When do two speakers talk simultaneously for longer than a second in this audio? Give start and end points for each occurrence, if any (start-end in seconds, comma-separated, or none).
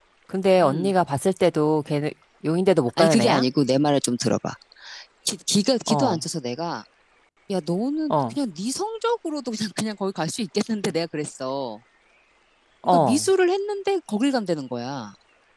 none